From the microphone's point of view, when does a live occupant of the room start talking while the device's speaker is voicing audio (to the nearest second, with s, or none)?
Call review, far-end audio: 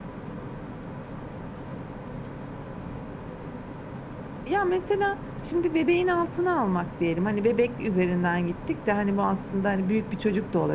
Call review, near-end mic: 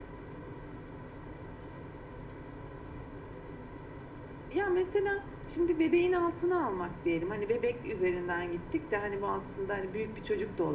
none